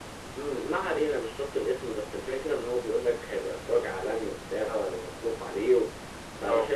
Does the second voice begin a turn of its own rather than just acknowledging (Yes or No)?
No